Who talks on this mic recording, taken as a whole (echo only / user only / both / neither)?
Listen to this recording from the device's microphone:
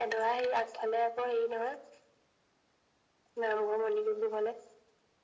echo only